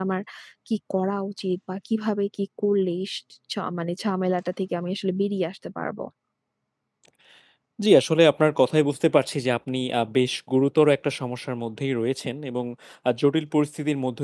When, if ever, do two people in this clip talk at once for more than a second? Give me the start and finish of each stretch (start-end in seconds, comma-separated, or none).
none